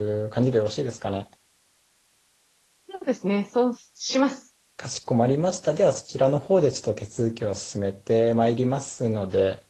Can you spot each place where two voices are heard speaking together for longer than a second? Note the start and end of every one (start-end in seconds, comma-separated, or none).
none